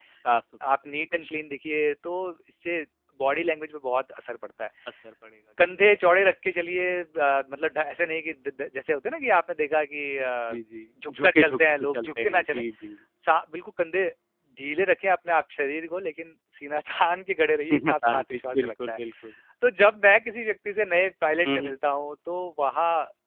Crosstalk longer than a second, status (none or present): present